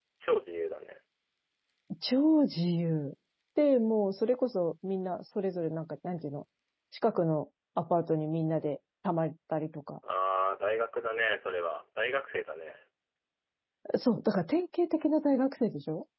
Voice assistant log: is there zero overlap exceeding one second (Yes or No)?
Yes